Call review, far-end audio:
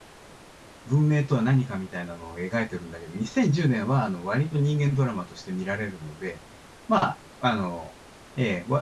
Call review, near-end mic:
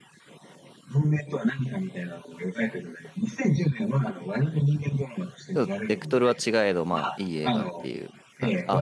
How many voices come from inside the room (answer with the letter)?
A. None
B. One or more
B